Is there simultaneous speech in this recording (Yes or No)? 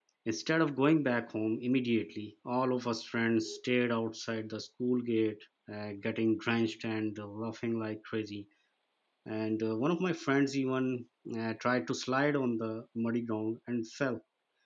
No